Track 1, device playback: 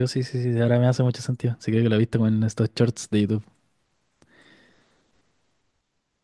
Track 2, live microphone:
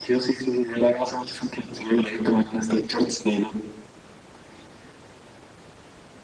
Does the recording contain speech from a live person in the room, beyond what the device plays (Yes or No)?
No